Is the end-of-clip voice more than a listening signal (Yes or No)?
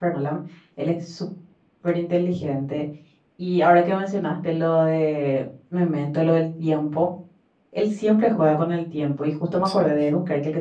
No